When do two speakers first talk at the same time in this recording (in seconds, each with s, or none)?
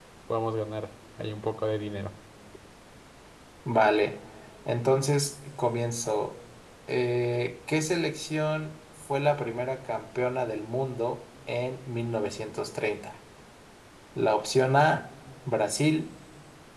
none